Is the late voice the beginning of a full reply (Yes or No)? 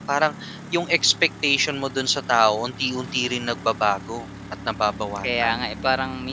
Yes